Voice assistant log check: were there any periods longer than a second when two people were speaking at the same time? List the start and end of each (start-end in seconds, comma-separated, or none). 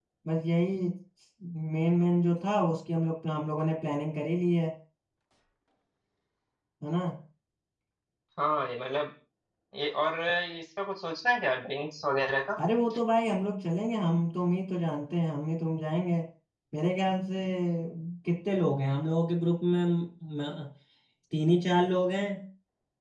none